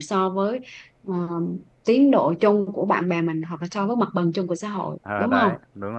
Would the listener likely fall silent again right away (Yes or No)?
No